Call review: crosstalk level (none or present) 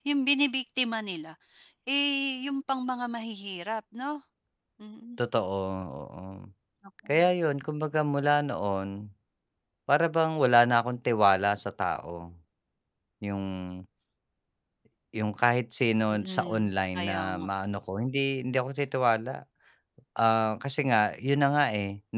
present